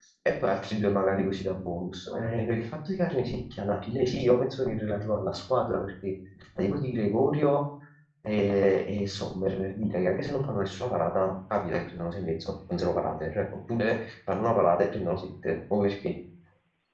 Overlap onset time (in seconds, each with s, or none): none